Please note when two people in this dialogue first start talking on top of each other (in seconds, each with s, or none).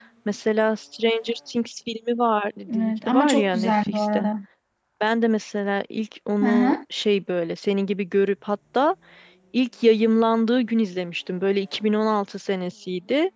2.7 s